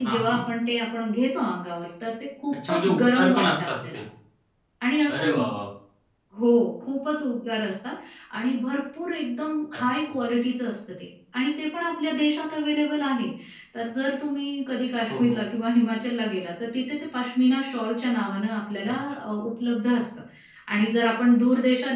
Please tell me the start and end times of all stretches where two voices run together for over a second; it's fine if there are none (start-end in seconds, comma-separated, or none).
2.7-4.0